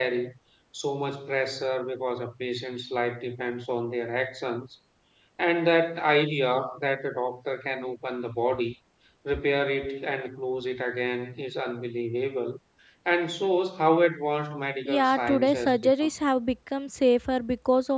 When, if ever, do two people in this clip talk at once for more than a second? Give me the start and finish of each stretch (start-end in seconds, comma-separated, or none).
14.8-16.1